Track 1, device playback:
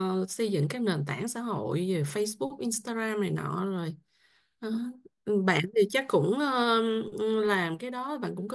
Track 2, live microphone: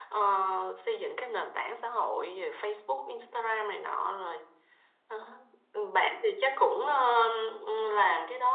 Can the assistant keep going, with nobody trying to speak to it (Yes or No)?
Yes